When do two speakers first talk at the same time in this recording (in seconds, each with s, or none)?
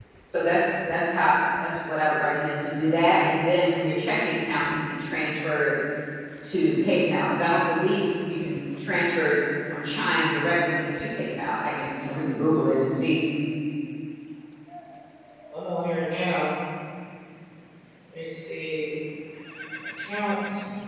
none